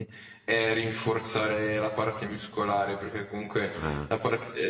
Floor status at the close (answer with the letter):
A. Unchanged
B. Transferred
A